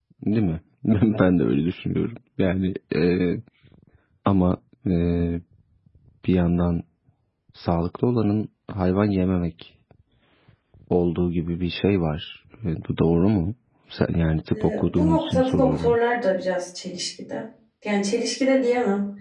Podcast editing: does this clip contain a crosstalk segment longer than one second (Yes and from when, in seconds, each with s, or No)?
Yes, from 14.5 s